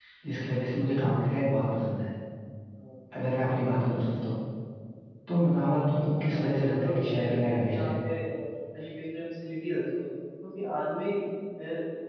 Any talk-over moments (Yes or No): Yes